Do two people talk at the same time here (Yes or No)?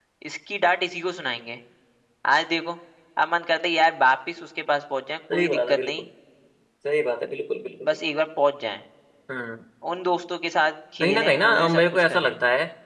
Yes